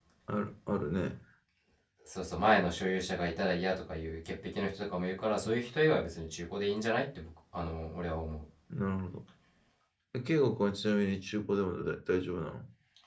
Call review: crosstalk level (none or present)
none